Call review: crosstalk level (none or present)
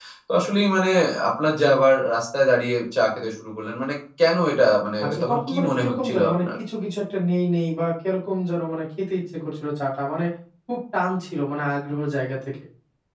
present